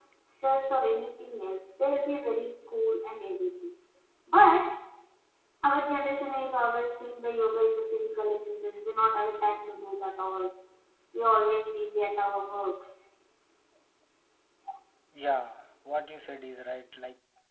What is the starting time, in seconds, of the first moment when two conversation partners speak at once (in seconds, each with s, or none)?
none